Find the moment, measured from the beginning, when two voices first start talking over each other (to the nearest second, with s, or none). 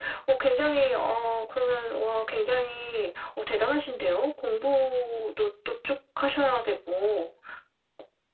none